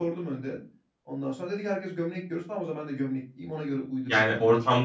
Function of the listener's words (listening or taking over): taking over